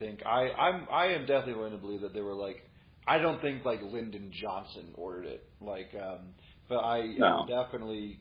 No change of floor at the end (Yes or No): Yes